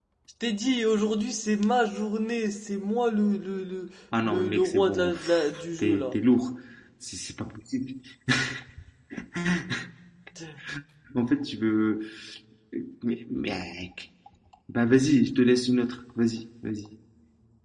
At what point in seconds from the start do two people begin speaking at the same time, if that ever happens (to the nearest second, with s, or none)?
4 s